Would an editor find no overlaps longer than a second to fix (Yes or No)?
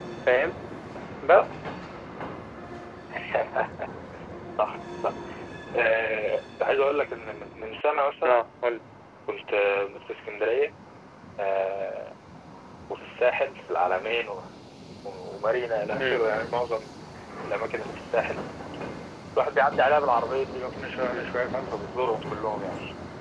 Yes